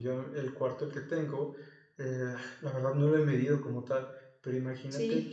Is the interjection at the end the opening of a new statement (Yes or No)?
No